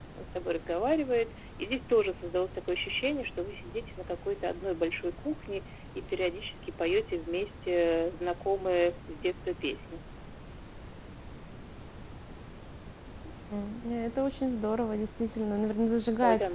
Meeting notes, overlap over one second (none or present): none